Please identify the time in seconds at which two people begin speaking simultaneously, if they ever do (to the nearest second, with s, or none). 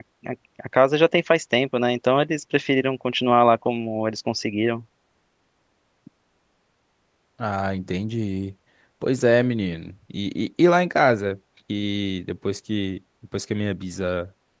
none